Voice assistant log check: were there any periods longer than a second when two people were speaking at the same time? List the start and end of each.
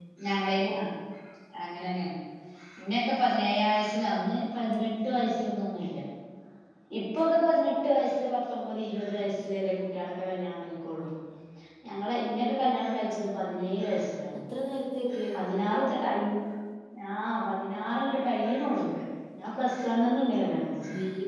none

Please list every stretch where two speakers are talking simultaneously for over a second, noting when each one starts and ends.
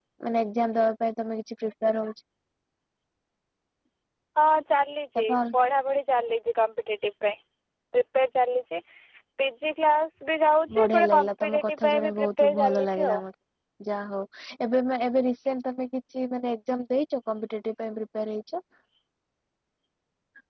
10.7-13.2

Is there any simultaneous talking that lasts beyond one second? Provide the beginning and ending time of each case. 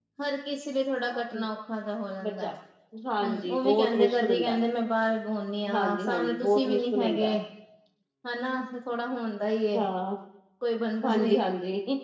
3.2-4.6, 5.7-7.4

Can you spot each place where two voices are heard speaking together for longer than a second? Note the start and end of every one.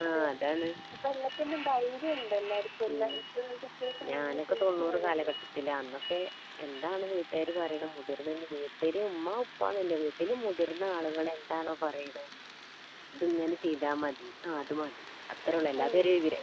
4.1-5.3

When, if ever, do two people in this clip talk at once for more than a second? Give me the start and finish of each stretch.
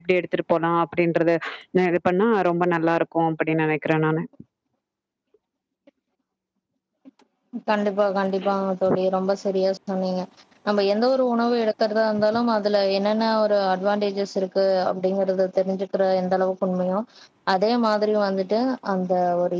none

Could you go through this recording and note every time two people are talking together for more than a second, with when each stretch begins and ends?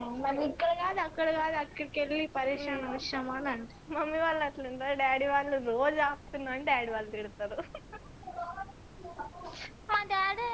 none

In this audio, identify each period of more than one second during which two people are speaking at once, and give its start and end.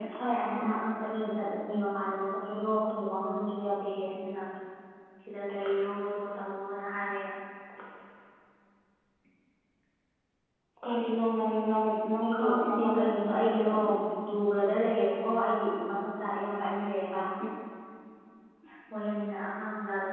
12.3-13.6

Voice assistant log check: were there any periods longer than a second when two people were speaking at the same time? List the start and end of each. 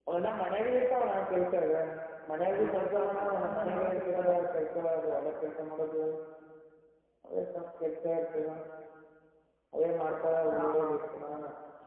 2.7-4.3

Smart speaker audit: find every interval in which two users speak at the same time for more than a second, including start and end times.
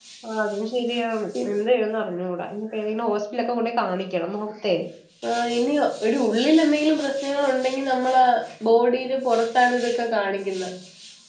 none

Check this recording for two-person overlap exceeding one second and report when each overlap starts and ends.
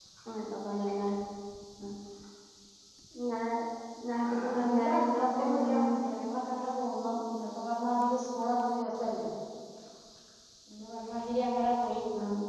4.3-5.9

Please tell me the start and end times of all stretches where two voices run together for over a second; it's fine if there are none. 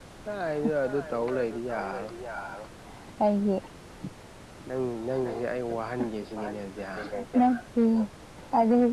0.6-2.1

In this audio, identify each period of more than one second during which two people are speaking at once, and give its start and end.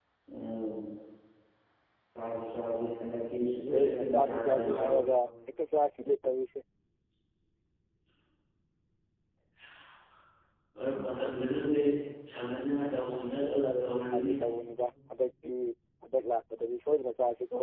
3.7-4.9, 13.1-14.4

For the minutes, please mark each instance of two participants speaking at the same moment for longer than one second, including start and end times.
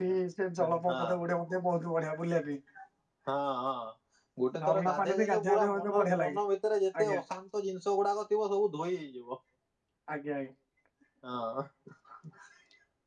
4.6-6.4

